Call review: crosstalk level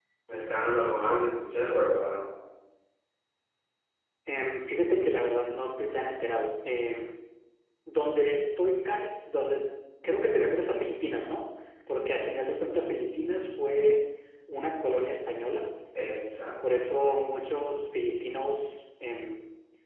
none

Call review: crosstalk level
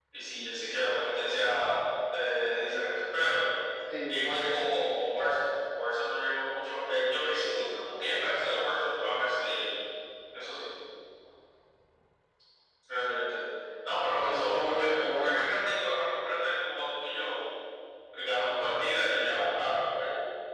present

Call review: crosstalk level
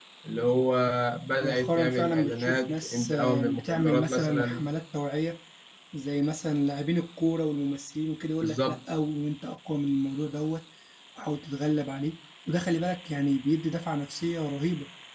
present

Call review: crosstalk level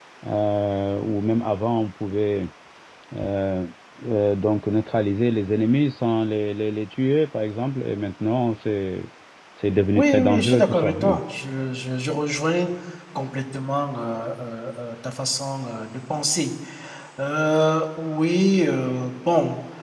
present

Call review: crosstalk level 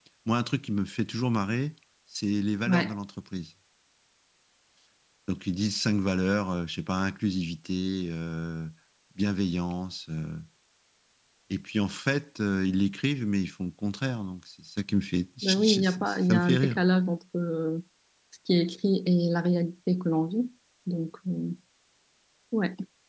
present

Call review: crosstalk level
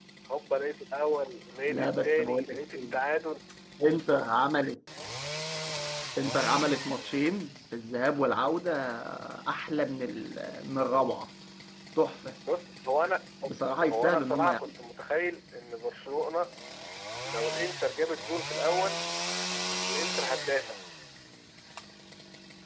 present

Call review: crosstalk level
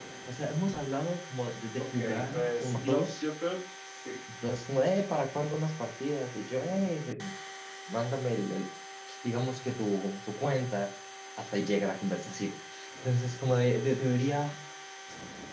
present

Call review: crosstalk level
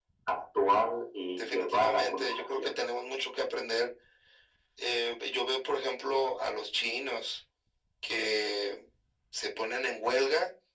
present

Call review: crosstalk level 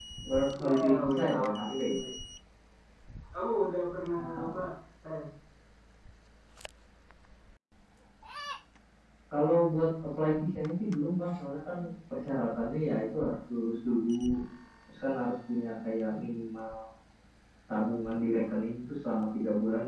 present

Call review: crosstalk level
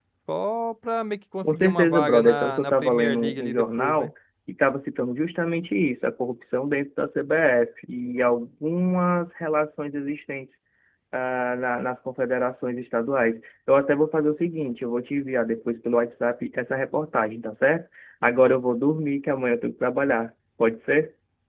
present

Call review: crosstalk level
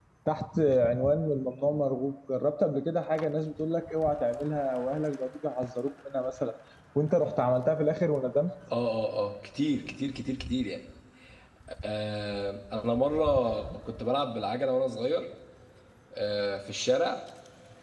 none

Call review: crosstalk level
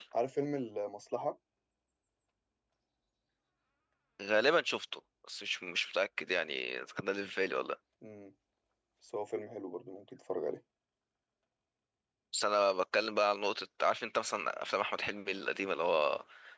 none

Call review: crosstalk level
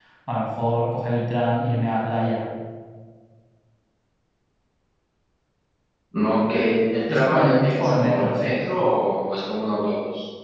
present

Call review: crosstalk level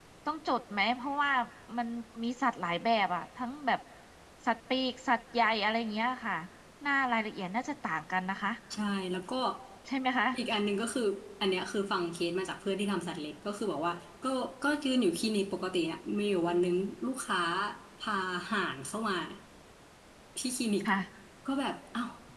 none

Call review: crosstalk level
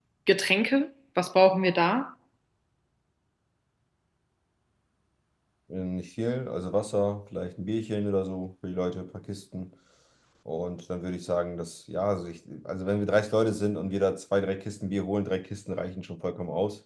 none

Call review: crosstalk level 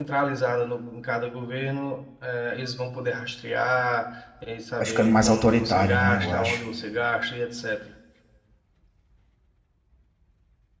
present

